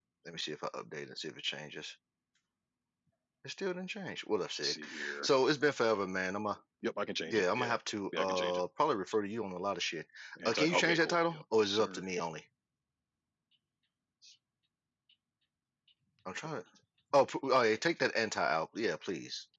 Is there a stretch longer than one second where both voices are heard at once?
Yes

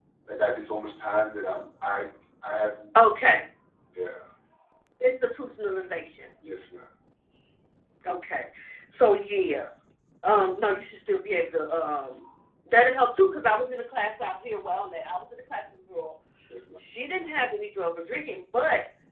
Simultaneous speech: No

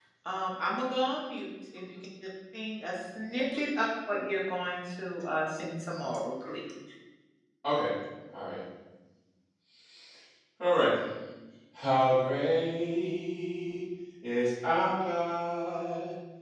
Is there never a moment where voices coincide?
Yes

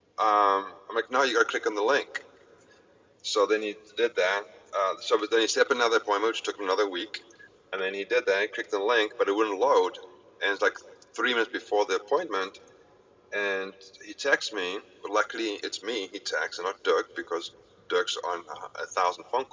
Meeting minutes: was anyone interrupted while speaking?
No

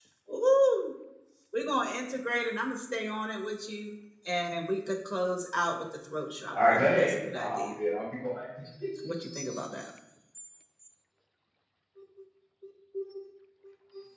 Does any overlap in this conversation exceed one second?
Yes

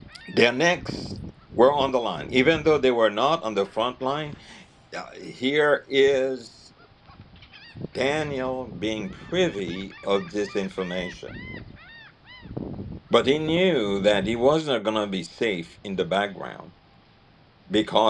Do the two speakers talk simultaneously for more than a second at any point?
No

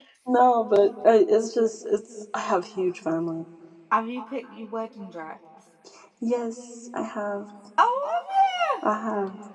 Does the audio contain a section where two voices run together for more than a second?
No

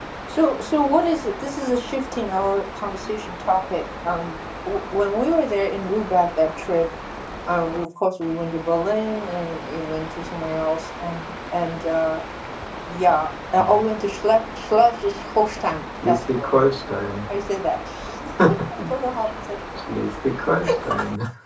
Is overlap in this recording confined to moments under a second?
Yes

